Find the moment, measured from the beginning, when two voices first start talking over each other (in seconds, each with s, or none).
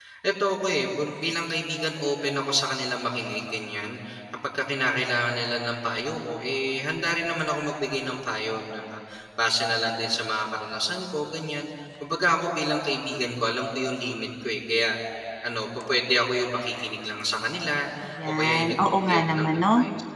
18.2 s